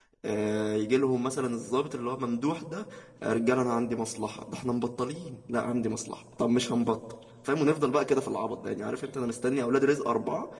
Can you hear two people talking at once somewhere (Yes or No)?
No